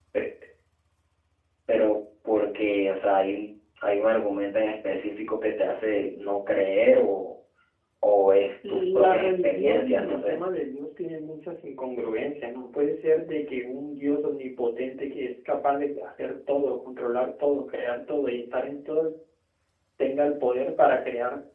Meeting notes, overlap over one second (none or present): present